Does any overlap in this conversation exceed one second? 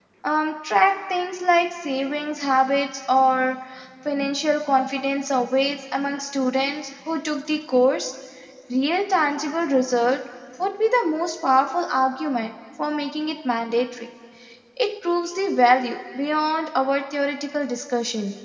No

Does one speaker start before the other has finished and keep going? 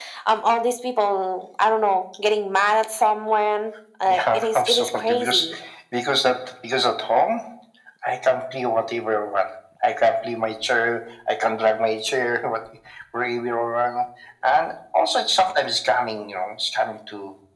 Yes, from 4.1 s

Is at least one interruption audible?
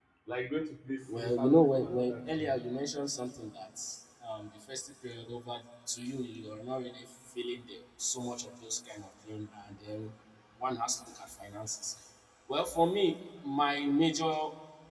Yes, from 1.1 s

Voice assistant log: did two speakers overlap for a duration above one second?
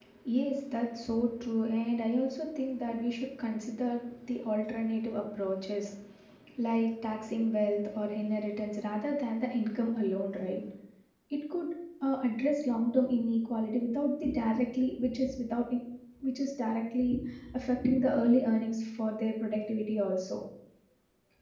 No

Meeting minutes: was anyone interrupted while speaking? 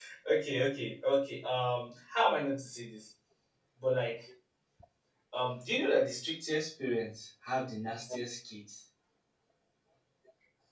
No

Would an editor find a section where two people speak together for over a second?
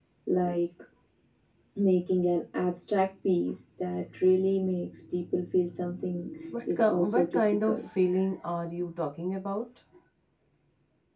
Yes, from 6.5 s

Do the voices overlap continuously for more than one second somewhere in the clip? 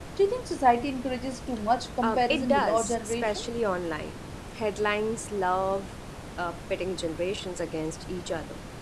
Yes, from 2.0 s

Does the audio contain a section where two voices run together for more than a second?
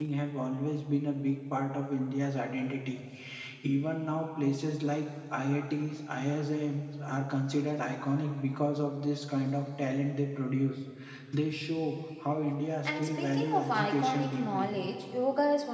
Yes, from 12.8 s

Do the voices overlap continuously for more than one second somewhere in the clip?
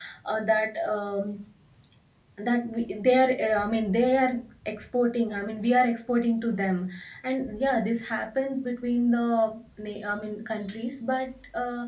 No

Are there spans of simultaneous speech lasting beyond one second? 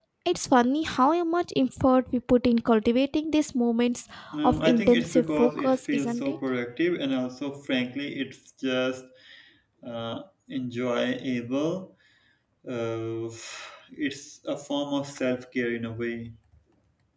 Yes, from 4.4 s

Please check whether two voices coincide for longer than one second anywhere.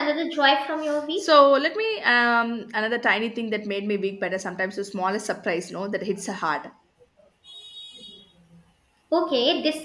No

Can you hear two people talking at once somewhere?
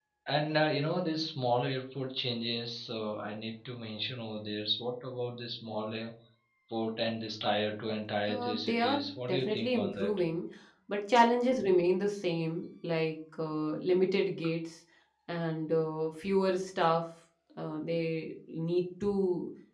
Yes, from 8.3 s

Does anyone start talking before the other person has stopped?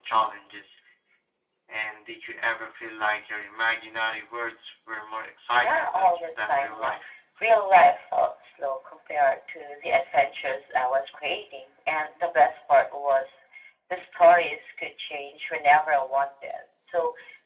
Yes, from 5.6 s

